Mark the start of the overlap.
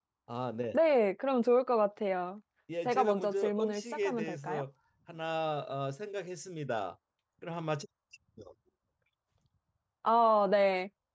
2.9 s

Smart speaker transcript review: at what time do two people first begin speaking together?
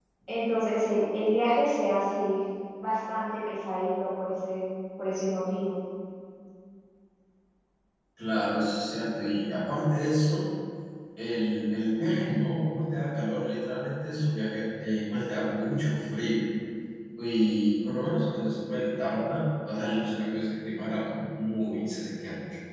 none

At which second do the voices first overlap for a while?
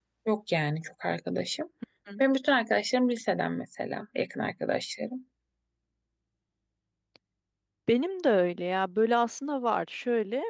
none

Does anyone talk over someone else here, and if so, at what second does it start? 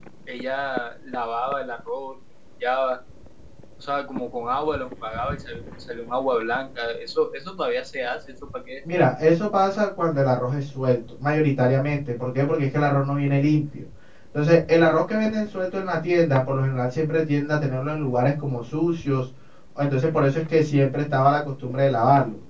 none

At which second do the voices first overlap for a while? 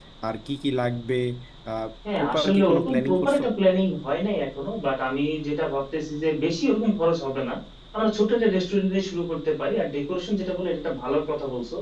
2.2 s

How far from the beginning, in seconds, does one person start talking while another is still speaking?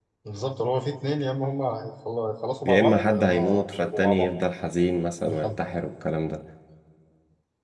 2.7 s

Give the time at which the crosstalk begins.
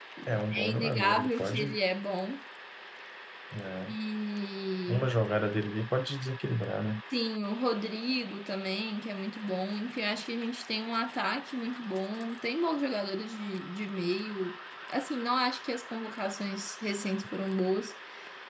0.5 s

